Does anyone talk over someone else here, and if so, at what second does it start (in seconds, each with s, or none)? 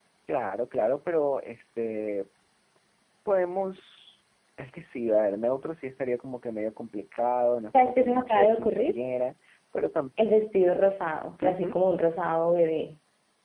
7.7 s